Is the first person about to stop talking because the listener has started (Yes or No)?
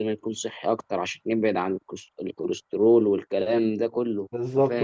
Yes